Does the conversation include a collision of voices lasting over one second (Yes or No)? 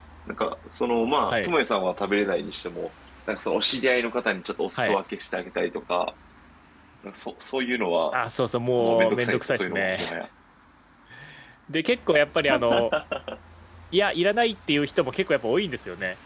Yes